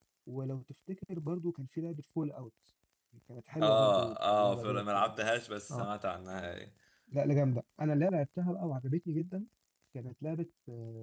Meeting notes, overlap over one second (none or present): present